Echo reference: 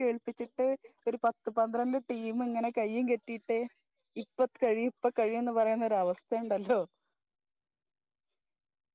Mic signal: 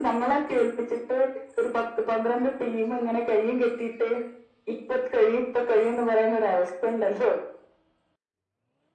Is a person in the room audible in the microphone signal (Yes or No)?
No